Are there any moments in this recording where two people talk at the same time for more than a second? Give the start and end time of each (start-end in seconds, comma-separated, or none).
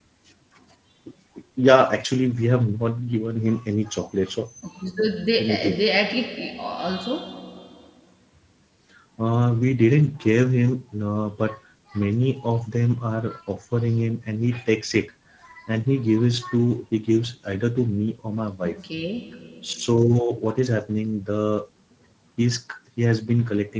none